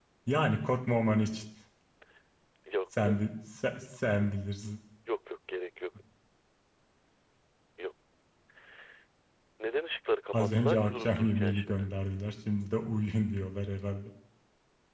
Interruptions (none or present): present